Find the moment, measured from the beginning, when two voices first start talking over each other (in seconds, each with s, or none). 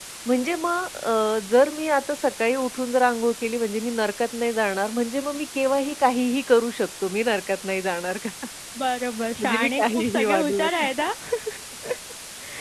9.4 s